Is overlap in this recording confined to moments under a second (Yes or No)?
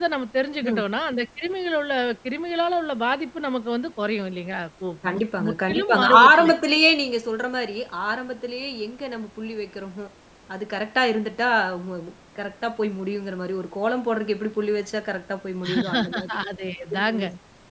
No